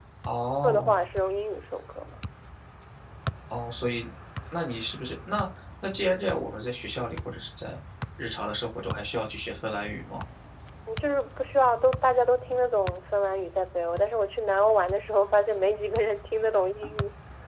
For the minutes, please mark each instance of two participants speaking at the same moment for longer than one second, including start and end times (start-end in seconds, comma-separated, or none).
none